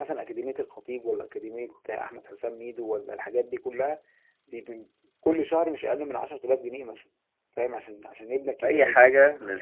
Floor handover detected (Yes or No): Yes